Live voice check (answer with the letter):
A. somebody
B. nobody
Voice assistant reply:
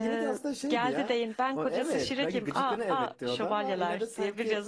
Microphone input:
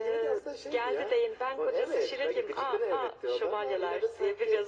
B